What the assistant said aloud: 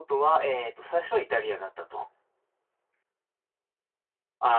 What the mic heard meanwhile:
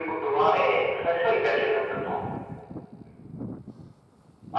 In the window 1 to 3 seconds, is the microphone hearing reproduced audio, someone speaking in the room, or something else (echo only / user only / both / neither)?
echo only